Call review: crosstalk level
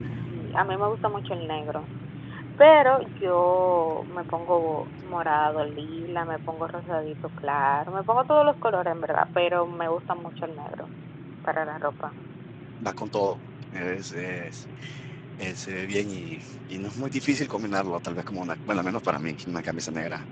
none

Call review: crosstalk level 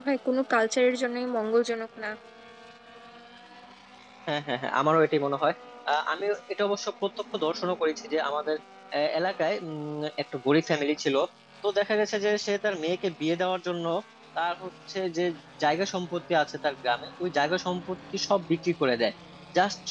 none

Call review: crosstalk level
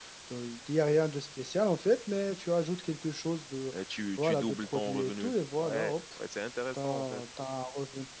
present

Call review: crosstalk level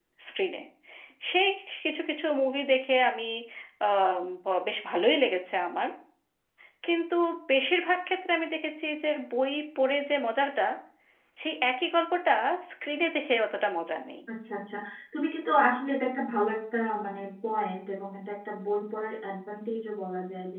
none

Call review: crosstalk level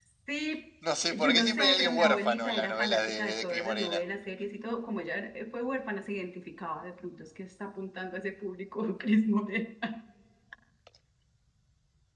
present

